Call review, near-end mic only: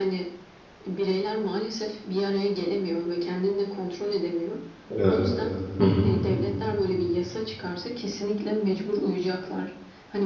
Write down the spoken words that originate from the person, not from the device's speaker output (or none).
evet. Hı hı.